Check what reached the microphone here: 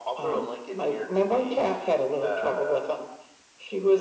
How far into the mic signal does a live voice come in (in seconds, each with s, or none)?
none